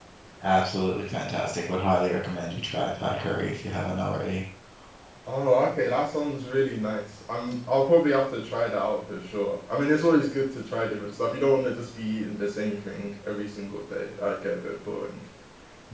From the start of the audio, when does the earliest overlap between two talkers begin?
none

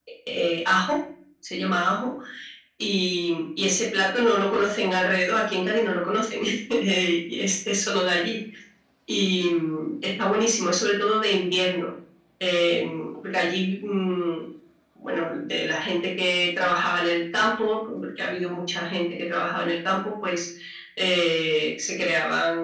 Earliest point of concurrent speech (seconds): none

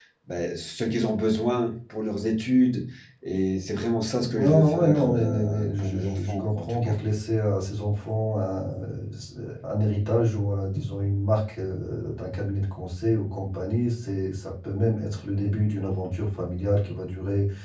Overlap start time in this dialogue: 4.2 s

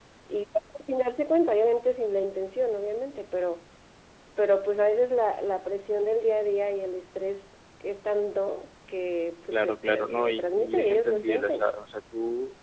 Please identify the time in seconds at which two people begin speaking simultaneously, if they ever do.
9.5 s

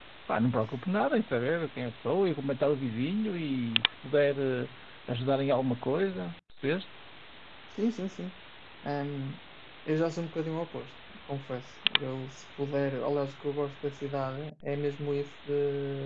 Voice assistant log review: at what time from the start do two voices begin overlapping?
none

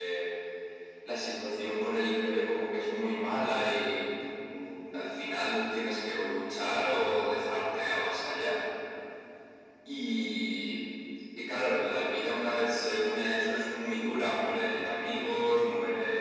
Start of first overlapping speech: none

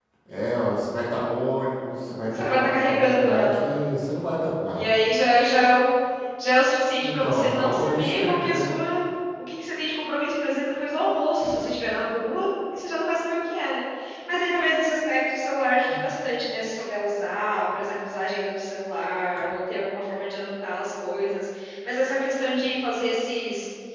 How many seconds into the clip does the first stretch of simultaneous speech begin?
2.4 s

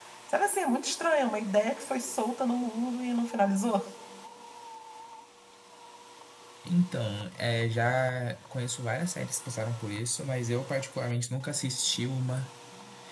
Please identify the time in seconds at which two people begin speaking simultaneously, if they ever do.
none

